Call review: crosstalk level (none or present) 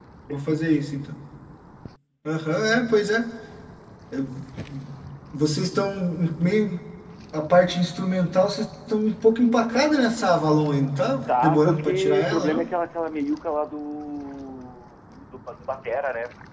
present